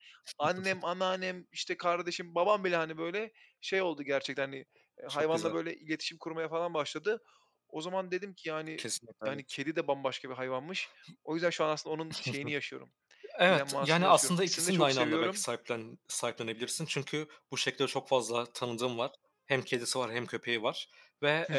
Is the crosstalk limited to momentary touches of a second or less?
No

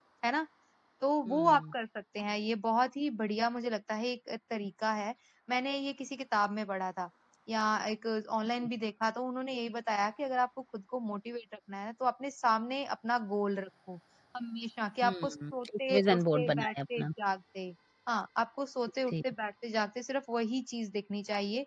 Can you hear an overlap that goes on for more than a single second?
Yes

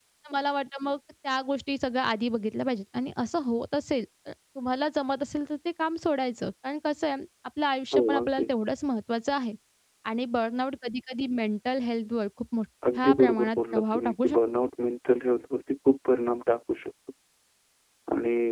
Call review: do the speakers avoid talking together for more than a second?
No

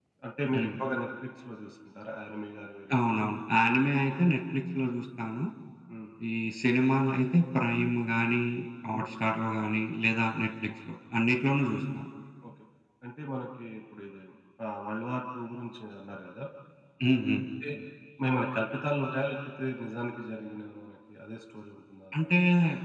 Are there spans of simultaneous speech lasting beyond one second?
No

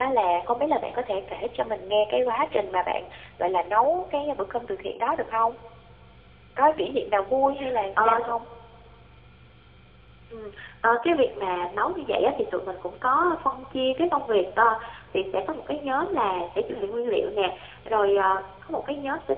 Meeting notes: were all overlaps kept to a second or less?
Yes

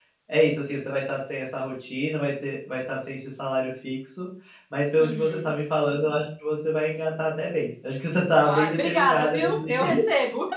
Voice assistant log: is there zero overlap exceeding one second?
No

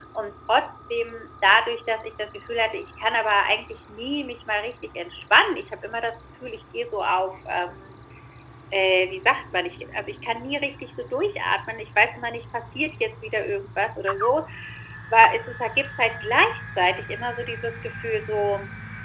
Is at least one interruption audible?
No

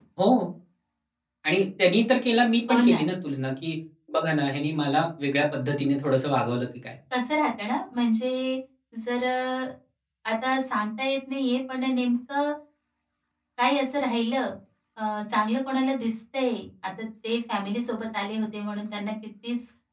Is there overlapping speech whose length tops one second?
No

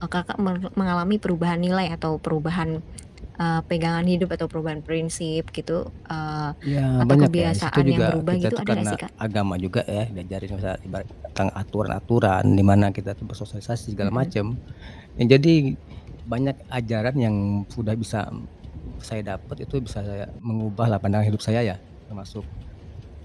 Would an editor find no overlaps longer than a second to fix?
No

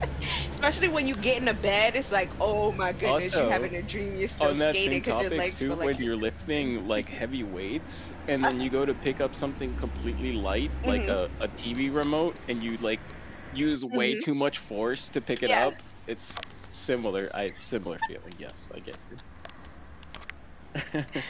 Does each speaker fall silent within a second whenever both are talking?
No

